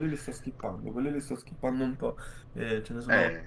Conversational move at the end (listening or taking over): listening